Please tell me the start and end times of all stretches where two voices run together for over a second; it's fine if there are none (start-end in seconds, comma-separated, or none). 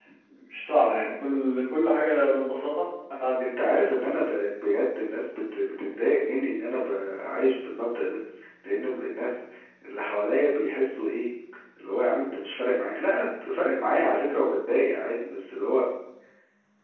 none